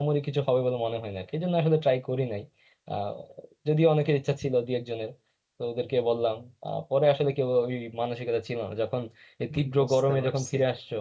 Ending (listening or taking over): listening